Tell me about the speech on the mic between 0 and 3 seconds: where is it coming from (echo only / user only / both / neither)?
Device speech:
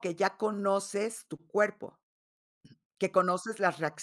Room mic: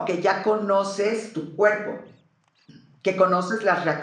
echo only